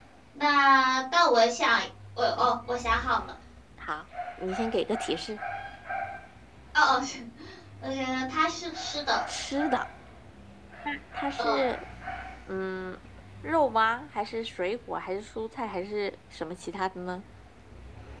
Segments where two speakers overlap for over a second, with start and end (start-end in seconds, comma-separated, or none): none